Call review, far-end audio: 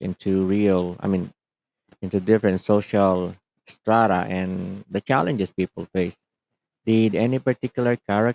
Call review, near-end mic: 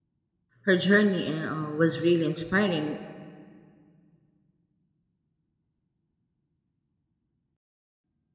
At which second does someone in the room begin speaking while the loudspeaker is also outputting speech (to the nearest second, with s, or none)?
1 s